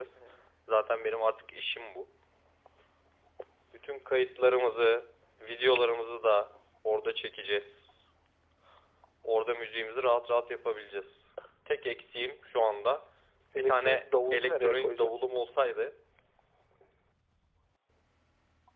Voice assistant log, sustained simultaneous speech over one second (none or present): present